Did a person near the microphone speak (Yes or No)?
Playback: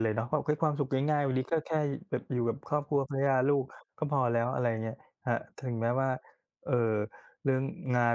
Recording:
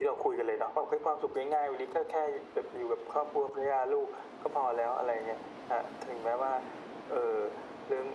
No